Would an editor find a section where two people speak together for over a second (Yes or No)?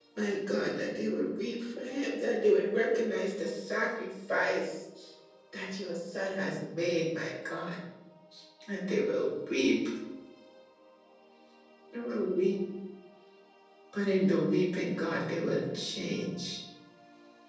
No